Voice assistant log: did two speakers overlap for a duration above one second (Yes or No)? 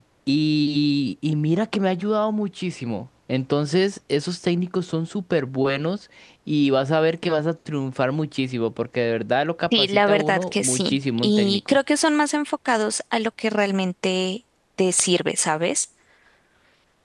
Yes